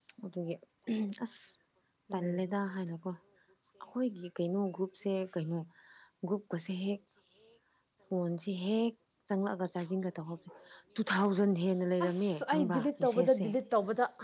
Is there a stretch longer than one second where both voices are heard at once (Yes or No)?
Yes